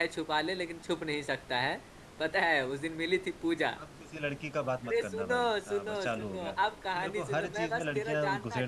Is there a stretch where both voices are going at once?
Yes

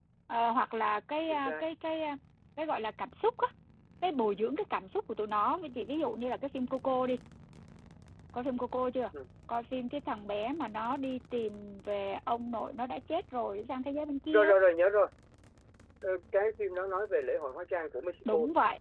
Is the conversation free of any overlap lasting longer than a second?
Yes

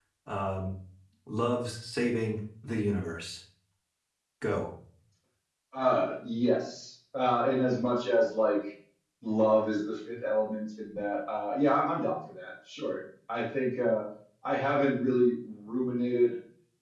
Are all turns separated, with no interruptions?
Yes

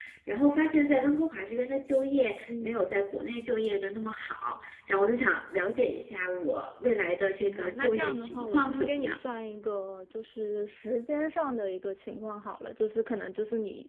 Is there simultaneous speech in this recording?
Yes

